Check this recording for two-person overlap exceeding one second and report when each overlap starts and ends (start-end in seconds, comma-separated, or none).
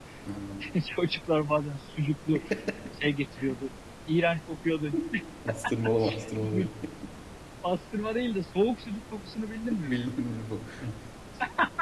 none